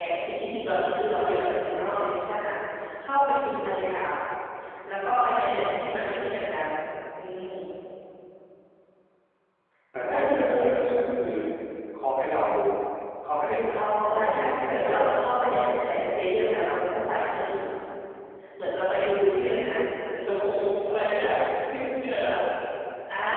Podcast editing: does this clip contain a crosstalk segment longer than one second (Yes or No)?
Yes